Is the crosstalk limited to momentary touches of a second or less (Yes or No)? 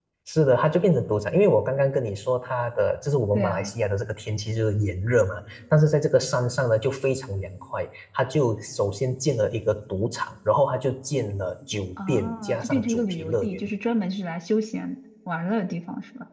No